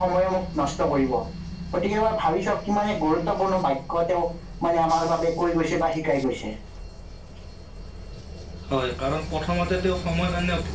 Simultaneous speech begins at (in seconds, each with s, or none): none